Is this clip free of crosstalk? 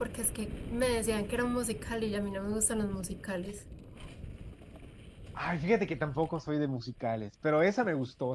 Yes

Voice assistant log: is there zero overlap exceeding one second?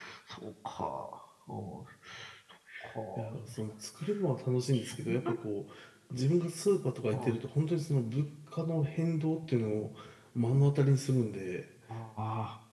Yes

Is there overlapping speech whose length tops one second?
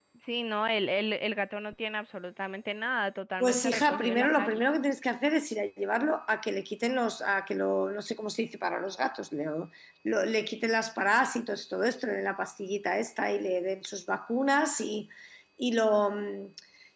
Yes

